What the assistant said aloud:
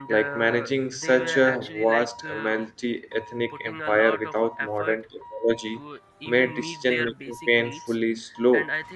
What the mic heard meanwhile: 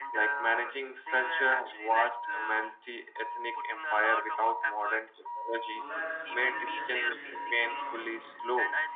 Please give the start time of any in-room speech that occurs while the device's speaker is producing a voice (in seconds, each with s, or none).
5.7 s